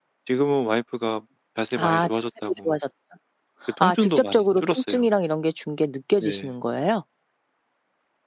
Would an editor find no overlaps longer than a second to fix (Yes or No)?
No